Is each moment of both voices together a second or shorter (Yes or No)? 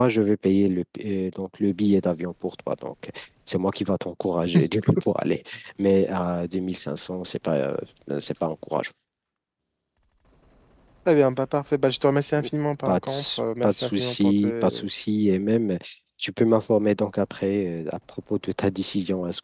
No